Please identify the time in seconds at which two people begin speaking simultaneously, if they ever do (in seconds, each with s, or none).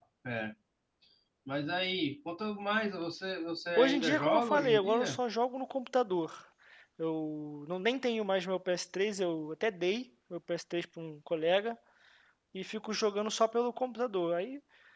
3.8 s